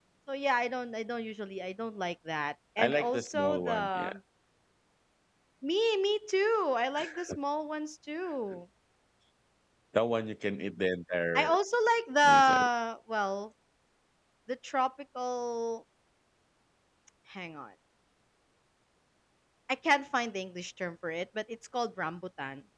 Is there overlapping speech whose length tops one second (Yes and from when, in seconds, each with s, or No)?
Yes, from 2.8 s